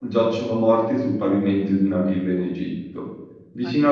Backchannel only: Yes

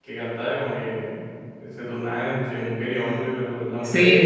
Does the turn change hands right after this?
Yes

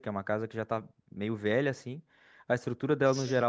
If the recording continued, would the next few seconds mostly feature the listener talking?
No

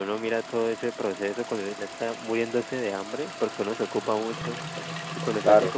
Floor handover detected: No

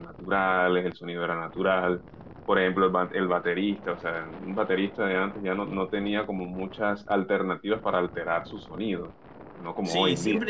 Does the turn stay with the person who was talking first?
No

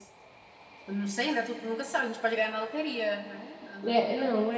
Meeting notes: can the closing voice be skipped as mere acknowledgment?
No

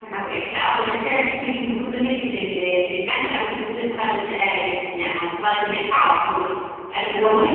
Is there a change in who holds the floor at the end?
Yes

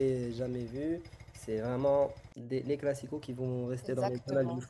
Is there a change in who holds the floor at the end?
Yes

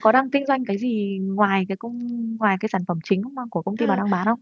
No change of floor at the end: No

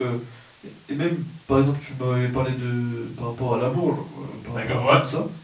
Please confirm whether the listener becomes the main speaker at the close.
Yes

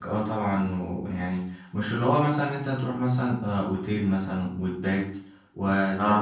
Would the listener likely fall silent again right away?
Yes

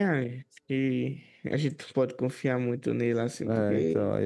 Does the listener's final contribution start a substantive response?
Yes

